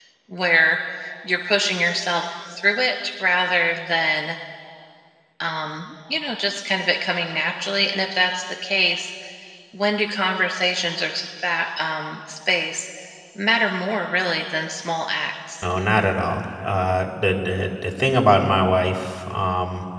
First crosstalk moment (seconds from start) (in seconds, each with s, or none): none